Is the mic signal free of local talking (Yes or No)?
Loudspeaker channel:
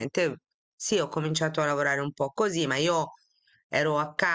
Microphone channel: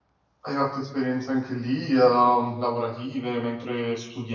No